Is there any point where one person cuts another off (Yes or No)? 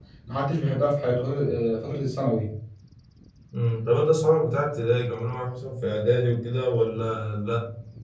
No